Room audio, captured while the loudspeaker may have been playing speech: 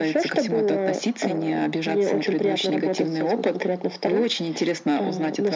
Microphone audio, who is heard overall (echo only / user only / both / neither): echo only